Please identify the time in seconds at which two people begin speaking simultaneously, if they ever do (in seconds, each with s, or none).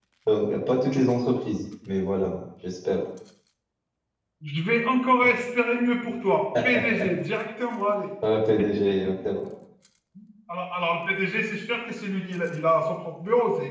none